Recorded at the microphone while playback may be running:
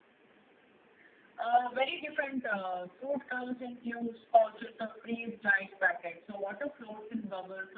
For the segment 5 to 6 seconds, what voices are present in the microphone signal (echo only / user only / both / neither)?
echo only